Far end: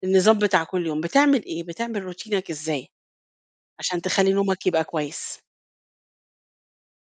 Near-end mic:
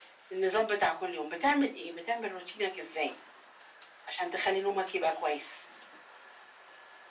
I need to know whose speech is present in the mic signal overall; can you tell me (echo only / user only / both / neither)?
echo only